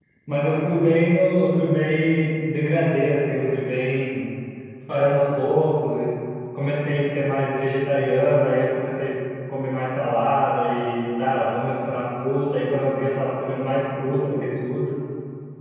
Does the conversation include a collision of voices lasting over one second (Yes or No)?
No